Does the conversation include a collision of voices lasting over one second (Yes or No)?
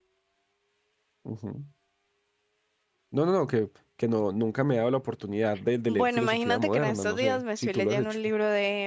Yes